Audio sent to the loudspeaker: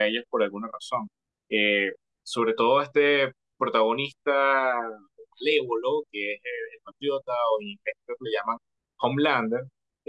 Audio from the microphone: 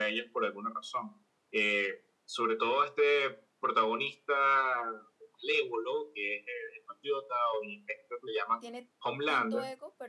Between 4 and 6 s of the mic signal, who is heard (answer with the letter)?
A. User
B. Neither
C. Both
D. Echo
D